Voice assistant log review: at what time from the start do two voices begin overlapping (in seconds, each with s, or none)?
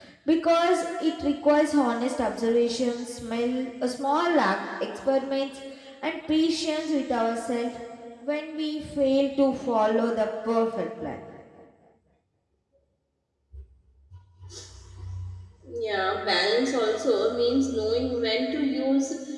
none